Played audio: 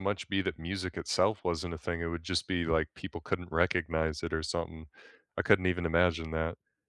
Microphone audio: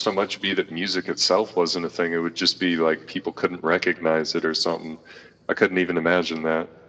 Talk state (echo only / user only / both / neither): echo only